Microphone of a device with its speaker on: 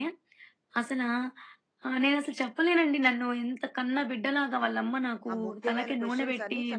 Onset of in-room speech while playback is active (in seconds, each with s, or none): 5.3 s